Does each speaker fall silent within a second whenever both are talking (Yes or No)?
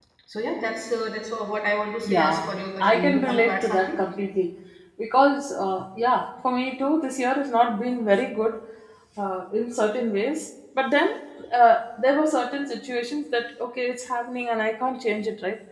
No